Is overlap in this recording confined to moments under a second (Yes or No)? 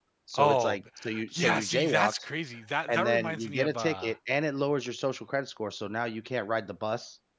No